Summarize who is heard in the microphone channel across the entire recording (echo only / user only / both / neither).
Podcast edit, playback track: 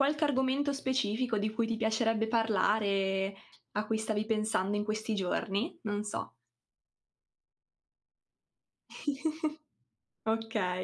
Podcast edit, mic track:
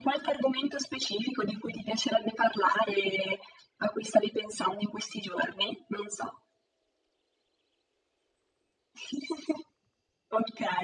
echo only